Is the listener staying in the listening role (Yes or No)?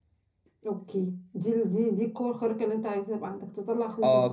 No